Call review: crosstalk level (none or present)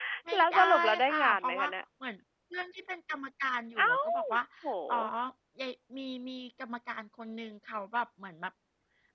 present